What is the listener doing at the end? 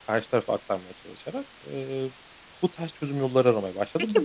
taking over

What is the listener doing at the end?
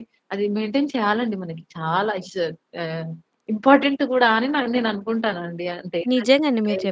taking over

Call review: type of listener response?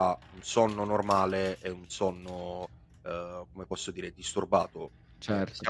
listening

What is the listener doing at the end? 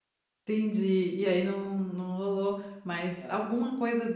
listening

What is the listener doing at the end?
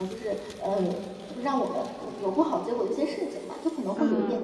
listening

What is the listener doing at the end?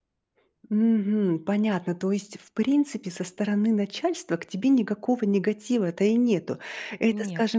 listening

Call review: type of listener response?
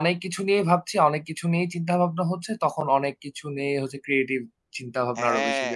taking over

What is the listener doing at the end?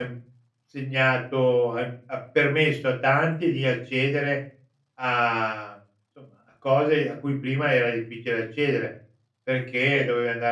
listening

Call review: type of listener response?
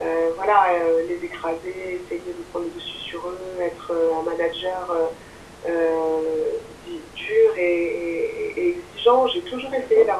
listening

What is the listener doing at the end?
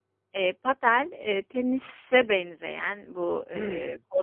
listening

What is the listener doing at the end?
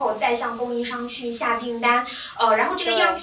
listening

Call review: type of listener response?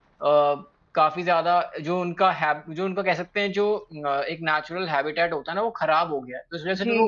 taking over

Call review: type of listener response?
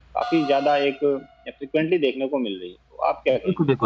taking over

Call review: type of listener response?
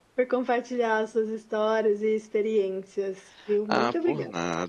taking over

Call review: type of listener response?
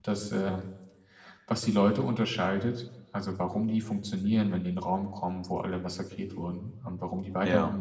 listening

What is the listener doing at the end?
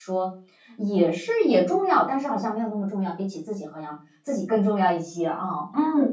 taking over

